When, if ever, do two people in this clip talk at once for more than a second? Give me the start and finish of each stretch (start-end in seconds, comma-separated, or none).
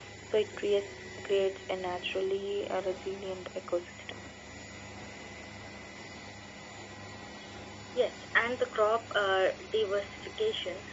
none